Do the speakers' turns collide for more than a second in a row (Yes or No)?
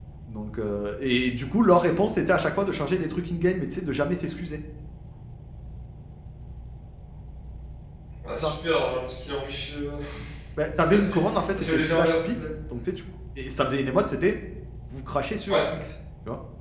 Yes